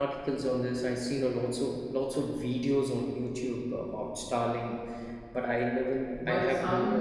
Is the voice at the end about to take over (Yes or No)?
Yes